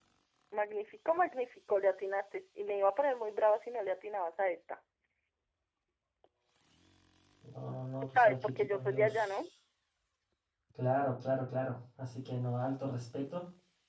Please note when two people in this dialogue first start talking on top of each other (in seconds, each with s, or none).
8.0 s